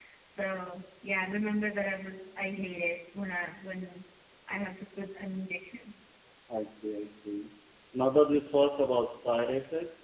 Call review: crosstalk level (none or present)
none